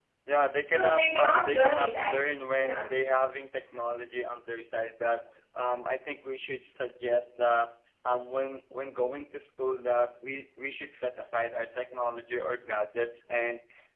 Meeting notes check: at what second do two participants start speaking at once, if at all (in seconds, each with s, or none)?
0.7 s